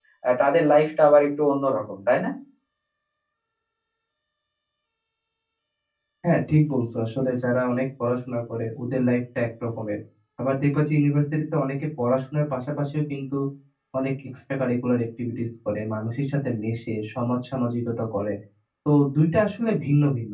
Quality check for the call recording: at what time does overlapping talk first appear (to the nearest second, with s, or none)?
none